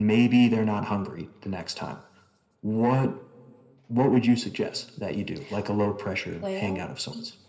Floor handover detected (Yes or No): Yes